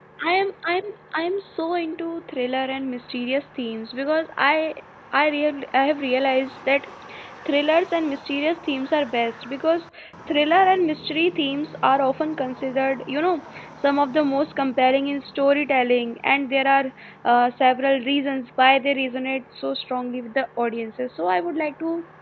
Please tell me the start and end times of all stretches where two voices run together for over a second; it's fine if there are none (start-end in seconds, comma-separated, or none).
none